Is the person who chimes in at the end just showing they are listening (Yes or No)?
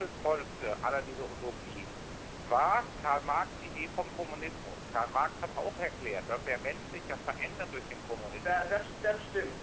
No